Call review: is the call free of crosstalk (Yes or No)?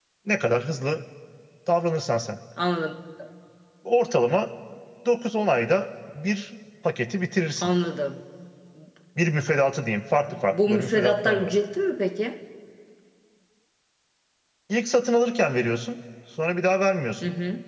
No